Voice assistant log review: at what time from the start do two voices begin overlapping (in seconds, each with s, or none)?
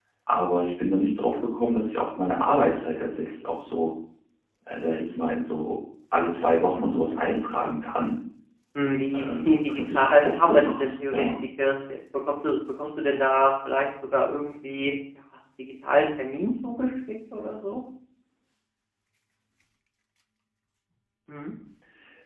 9.2 s